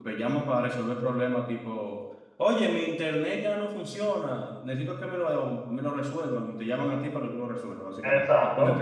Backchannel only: No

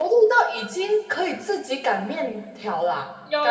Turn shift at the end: Yes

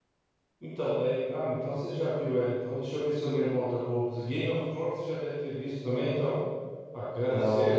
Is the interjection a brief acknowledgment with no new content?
No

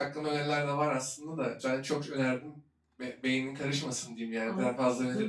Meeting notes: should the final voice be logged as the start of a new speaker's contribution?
Yes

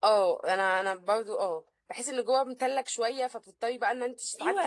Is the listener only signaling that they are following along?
No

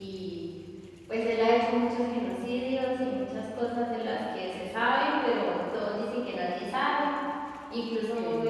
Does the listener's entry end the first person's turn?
No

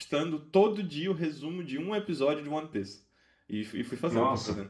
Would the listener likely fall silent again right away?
Yes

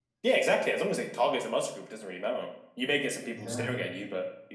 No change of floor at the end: Yes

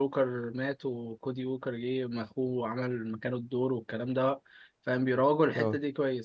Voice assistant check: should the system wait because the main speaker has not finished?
Yes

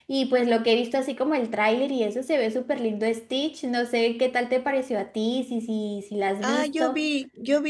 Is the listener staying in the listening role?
No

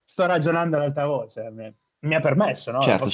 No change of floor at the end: No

